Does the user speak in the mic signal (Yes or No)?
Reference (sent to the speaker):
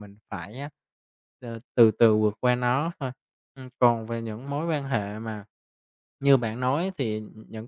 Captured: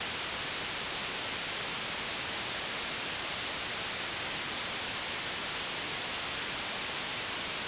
No